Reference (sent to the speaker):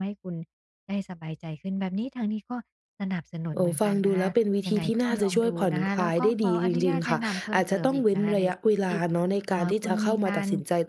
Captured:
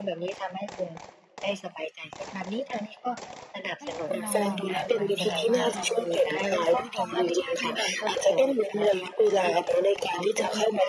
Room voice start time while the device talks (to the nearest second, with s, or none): 4 s